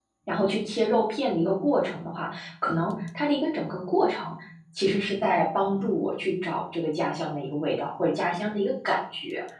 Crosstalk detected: No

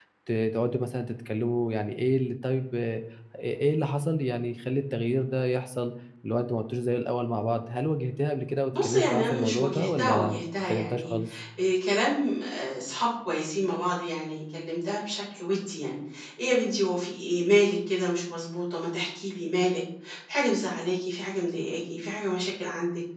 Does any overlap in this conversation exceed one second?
Yes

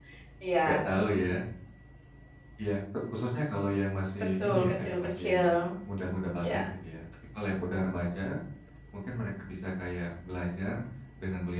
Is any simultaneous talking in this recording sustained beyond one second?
Yes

